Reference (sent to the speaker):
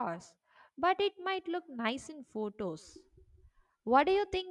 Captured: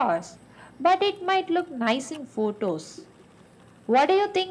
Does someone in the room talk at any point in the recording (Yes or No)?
No